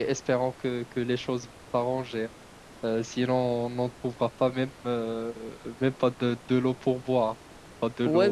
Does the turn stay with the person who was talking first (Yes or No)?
No